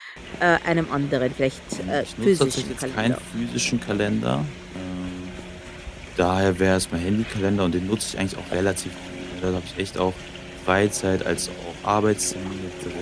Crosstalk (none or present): present